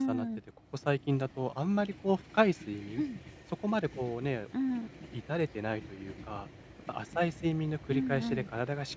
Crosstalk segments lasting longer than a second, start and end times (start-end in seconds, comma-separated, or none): none